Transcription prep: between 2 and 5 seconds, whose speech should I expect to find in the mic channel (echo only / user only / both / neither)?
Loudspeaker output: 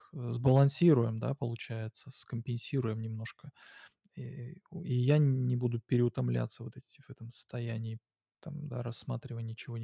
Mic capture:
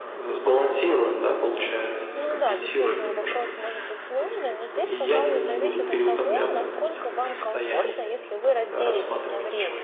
both